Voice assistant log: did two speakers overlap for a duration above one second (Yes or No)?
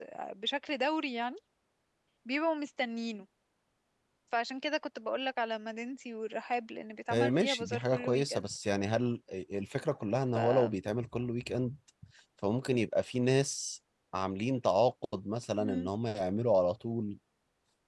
Yes